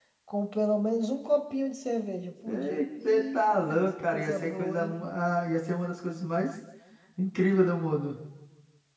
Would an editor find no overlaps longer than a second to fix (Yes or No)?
No